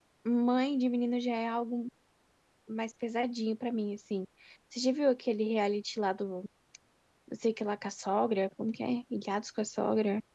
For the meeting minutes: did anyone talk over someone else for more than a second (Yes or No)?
No